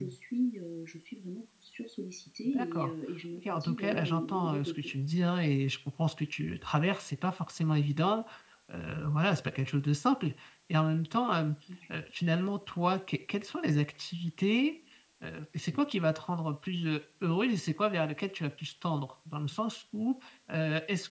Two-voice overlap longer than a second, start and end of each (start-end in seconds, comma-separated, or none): 3.4-4.8